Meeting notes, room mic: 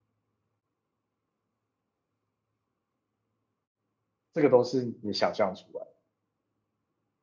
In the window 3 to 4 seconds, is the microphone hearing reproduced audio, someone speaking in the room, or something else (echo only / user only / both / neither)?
neither